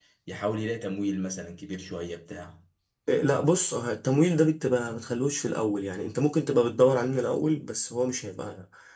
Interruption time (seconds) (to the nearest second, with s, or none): none